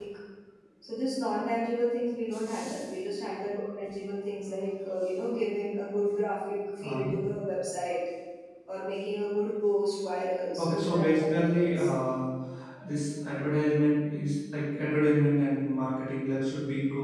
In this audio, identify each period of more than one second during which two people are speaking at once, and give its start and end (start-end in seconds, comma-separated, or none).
10.6-11.9